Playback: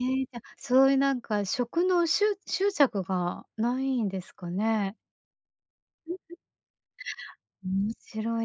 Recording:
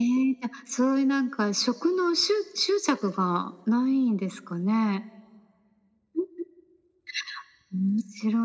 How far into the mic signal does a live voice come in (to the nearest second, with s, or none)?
none